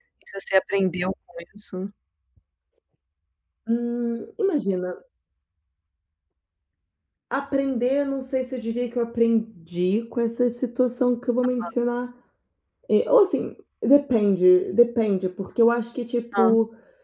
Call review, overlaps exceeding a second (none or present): none